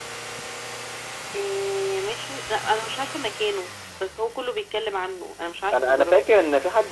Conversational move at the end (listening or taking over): taking over